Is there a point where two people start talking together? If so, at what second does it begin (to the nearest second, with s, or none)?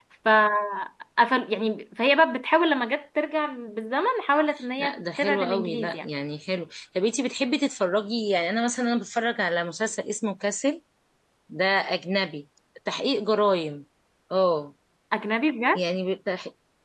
5 s